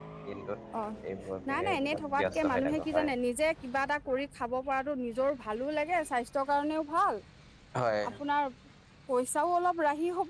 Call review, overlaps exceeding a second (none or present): present